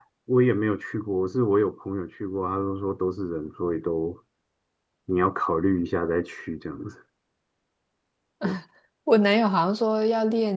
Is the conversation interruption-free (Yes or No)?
Yes